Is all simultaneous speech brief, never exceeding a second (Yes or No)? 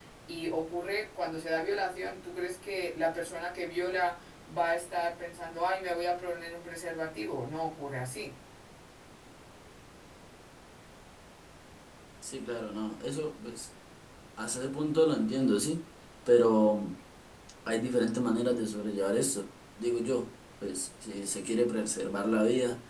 Yes